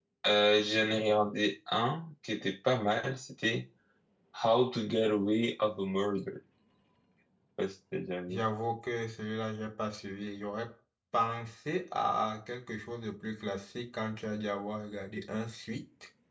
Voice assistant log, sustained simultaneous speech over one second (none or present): none